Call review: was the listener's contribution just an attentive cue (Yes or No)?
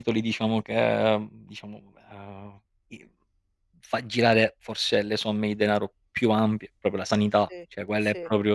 Yes